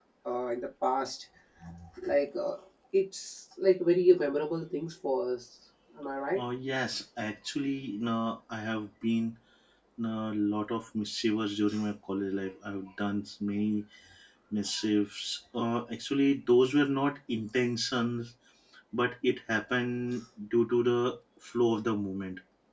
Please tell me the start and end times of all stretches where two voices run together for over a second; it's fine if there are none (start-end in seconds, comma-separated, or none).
none